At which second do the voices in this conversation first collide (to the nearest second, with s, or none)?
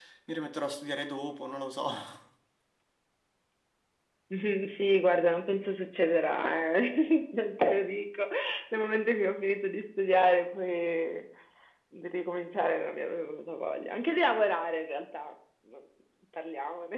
none